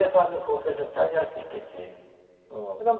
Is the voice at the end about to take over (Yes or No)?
Yes